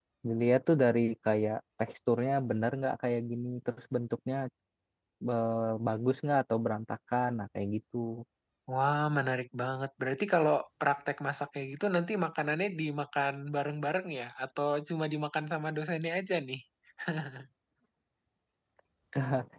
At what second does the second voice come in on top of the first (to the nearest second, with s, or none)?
none